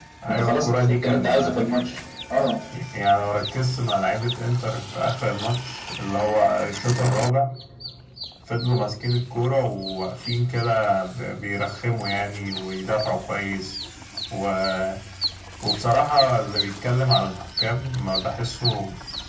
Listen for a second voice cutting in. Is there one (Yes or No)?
Yes